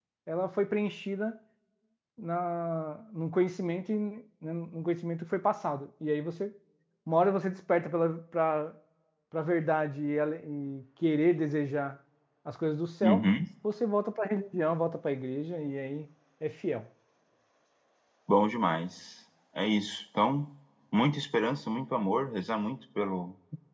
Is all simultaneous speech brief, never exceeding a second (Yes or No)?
Yes